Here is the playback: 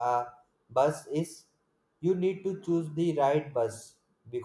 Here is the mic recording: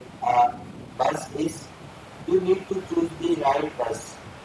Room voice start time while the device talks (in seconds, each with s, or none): none